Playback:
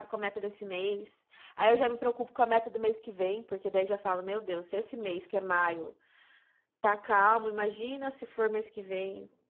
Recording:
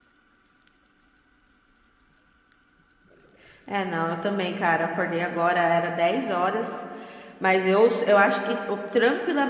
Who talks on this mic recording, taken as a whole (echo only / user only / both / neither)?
user only